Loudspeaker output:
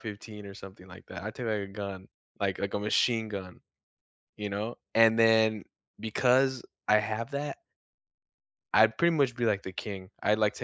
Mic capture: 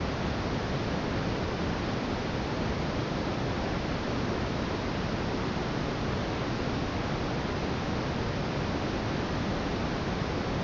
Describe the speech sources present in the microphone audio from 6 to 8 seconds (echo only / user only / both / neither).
neither